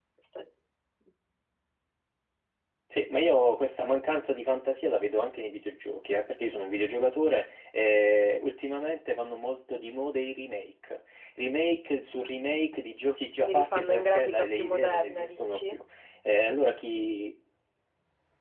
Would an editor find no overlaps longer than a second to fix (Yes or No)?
No